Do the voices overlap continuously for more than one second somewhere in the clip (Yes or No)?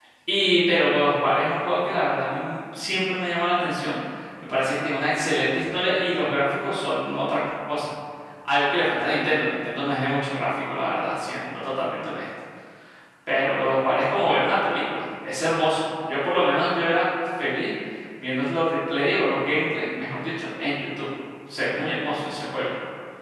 No